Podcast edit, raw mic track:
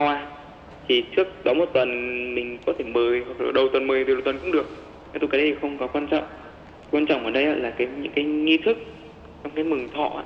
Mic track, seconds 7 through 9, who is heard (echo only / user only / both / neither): echo only